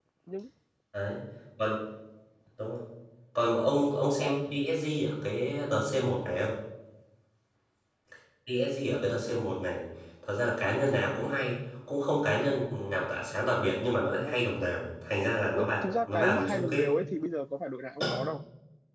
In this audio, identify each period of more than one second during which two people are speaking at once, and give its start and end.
15.5-16.9

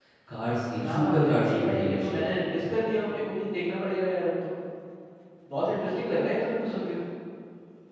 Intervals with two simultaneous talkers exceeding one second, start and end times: 0.8-2.3

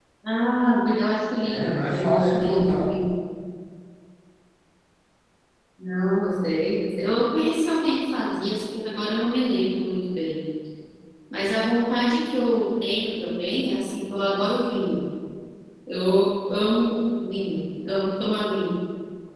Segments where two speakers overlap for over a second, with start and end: 1.4-3.0

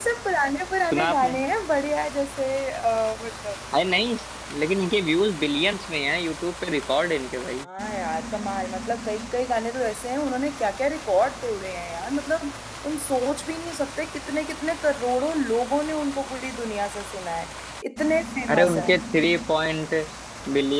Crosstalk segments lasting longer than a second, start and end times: none

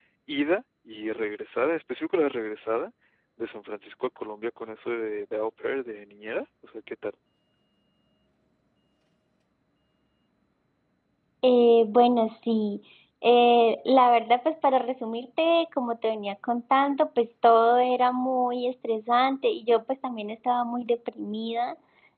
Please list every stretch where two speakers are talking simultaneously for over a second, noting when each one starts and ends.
none

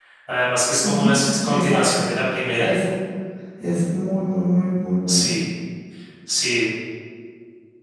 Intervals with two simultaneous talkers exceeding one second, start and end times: 0.8-2.1

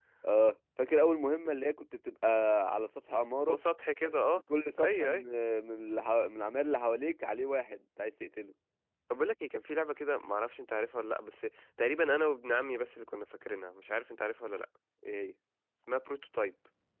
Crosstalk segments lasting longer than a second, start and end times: none

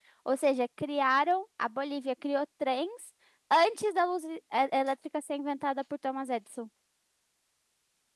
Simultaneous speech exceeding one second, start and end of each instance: none

